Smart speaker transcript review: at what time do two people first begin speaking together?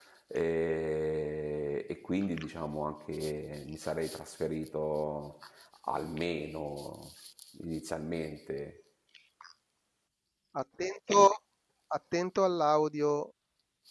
none

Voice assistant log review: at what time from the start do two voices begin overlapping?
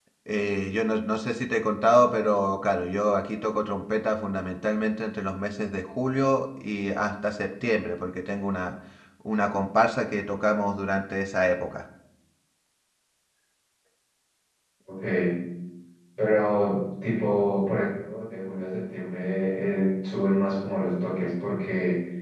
none

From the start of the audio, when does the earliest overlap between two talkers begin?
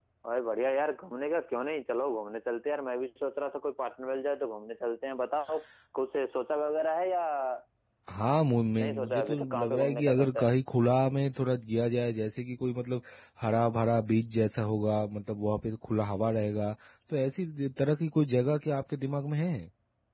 8.8 s

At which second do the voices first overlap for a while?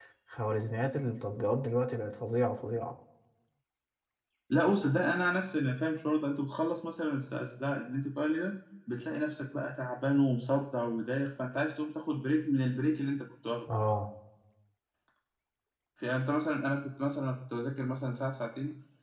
none

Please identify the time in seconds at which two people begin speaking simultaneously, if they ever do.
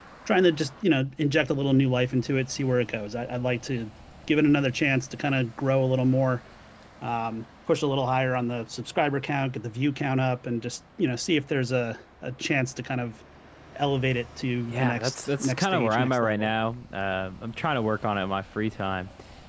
14.7 s

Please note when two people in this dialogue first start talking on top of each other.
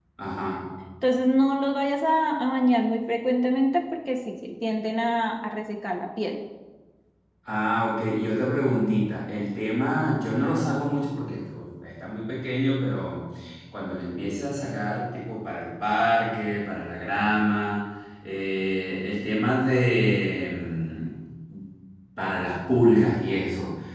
none

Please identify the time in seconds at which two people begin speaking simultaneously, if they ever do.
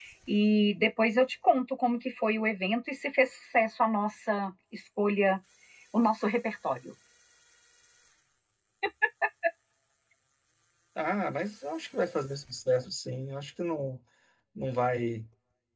none

